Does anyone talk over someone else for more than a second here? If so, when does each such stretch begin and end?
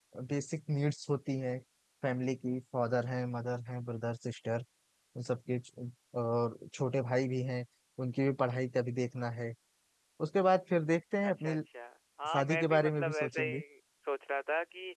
12.3-13.6

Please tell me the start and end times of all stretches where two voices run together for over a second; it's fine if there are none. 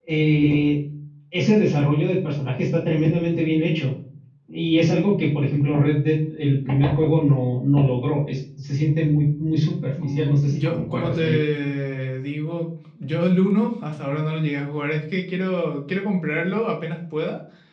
10.0-11.4

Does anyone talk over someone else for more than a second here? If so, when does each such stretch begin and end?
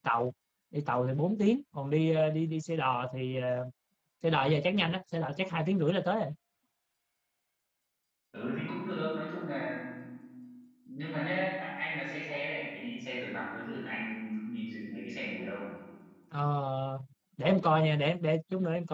none

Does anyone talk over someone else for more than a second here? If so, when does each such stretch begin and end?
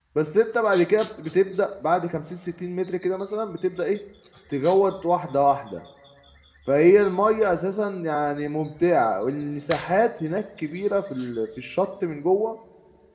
none

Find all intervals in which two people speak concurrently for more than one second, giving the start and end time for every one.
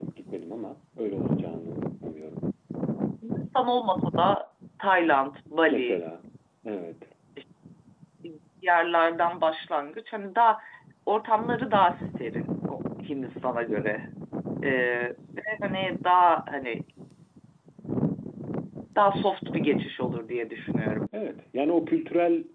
none

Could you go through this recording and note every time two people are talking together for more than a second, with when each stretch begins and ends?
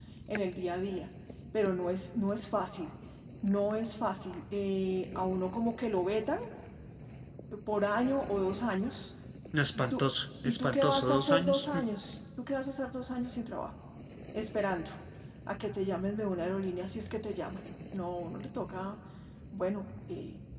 10.4-11.6

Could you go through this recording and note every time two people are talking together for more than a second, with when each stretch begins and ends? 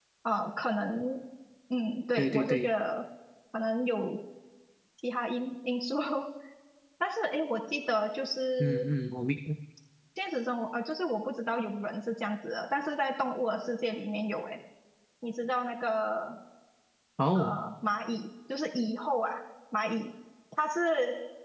none

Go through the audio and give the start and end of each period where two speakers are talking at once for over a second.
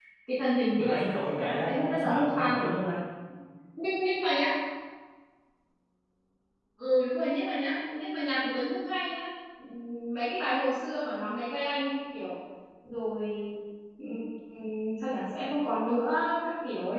0.8-2.7

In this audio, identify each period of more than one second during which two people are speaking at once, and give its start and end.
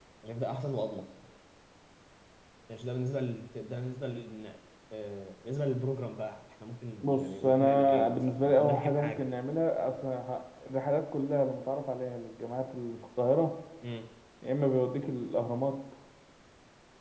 7.0-9.3

